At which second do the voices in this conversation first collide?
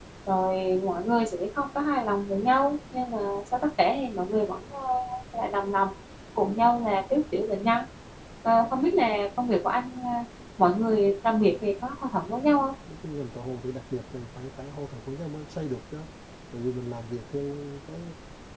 none

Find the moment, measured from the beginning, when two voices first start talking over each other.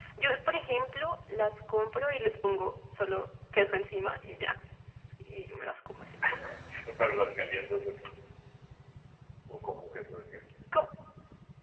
none

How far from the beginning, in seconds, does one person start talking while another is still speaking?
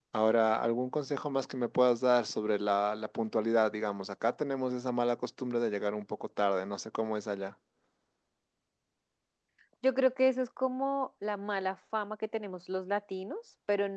none

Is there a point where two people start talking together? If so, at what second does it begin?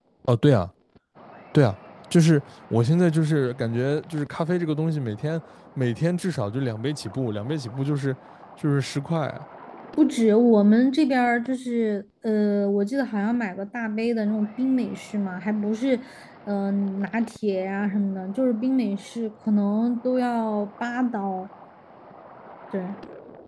none

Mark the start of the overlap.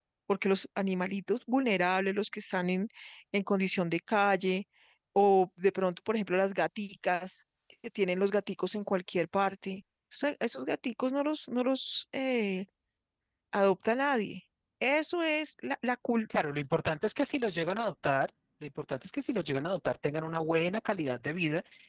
none

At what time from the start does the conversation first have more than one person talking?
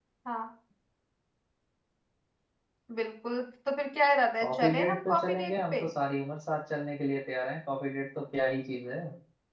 4.4 s

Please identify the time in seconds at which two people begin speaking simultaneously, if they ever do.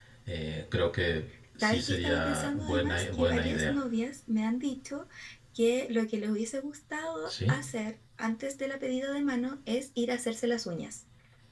1.6 s

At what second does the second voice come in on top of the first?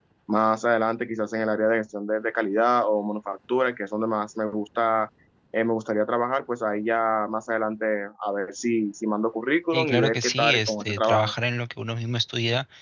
9.7 s

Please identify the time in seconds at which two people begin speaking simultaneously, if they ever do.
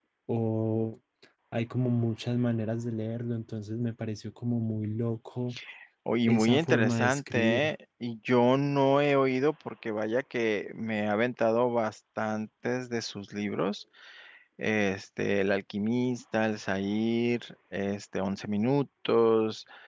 6.2 s

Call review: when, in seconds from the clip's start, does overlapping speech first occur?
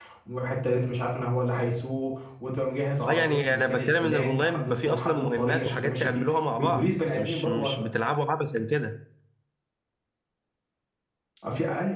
3.0 s

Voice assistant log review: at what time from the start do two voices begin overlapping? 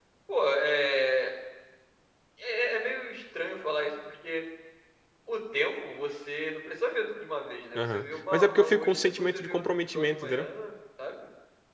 7.8 s

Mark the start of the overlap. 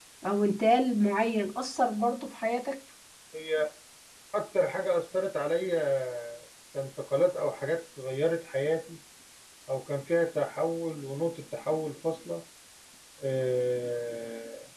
none

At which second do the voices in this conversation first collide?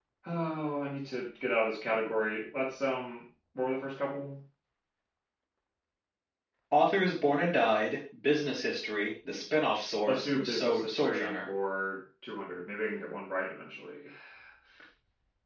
10.1 s

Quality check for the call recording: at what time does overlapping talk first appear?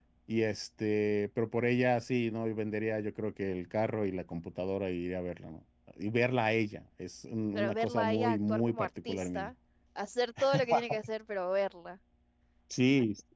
7.5 s

